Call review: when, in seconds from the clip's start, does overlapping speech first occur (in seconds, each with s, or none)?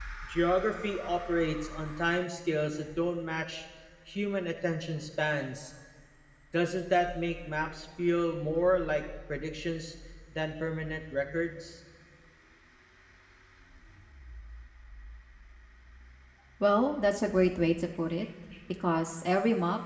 none